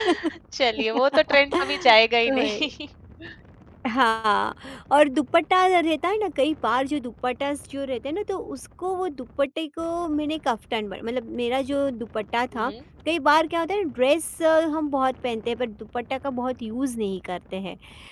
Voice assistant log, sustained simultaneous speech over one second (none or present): none